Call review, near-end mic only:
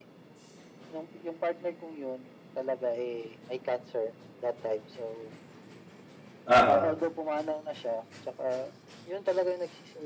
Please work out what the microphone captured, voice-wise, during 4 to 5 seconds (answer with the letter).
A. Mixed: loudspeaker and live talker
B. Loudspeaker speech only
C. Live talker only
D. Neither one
B